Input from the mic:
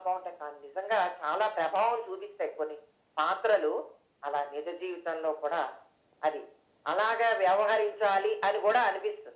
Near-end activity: none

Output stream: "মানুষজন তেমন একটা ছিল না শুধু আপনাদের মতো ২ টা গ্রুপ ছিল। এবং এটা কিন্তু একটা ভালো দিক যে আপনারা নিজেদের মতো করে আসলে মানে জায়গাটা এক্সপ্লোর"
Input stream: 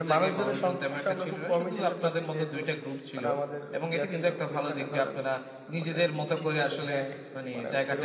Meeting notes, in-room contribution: present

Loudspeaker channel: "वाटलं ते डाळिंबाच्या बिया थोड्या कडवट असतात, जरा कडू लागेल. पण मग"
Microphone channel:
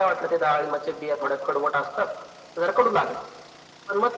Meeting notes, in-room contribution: none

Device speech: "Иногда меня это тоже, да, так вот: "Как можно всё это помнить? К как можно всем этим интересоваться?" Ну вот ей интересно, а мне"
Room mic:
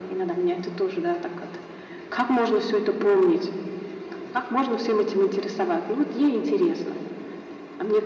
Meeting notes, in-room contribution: none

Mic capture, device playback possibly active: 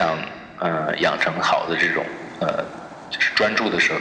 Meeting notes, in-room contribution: none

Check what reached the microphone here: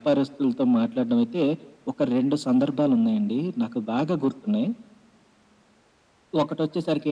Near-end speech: none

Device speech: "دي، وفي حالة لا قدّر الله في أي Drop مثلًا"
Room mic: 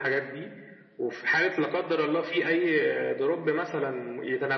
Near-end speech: none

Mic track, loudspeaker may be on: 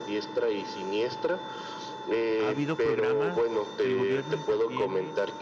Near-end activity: present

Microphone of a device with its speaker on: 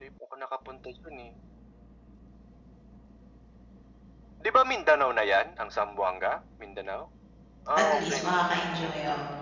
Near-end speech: present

